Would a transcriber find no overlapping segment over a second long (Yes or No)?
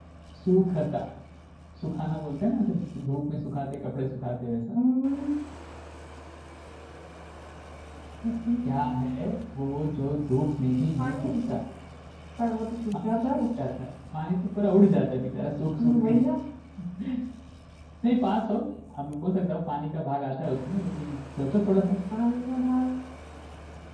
Yes